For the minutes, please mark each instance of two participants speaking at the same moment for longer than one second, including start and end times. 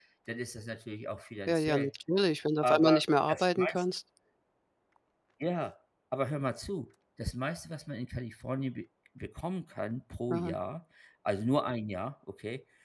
2.6-3.8

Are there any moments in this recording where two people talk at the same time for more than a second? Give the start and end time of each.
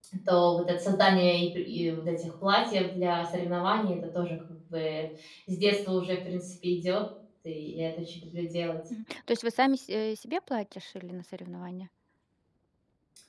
none

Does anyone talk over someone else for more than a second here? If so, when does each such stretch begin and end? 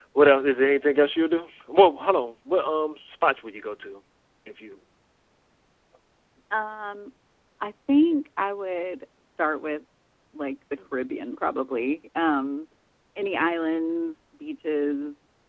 none

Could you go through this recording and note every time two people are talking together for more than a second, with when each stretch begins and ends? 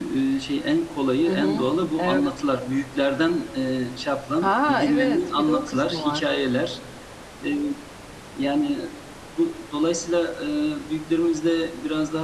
4.4-6.2

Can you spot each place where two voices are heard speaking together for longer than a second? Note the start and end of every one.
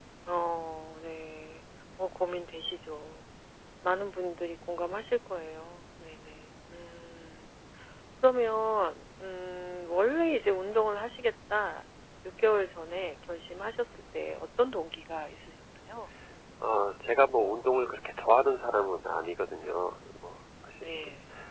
none

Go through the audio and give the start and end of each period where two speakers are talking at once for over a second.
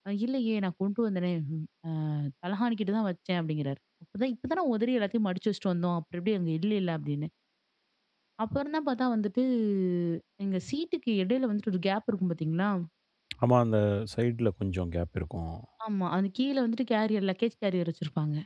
none

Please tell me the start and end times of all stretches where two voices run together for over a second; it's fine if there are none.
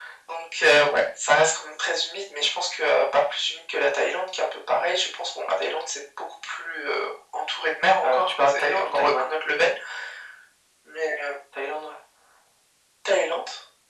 8.0-9.4

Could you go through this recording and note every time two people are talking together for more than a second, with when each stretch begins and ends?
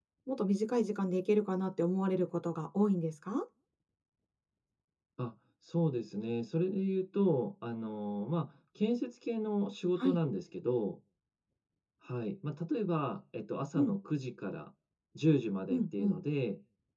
none

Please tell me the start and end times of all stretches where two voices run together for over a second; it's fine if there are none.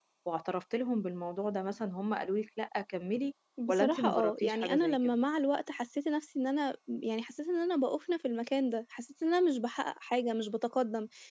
3.7-5.2

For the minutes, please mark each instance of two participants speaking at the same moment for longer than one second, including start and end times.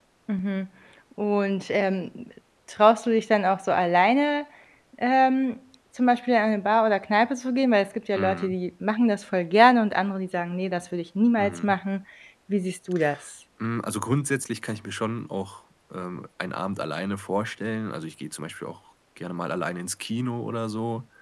none

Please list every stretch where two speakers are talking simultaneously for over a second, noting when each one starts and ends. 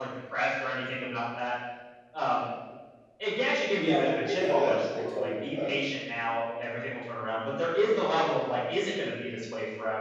3.8-5.7

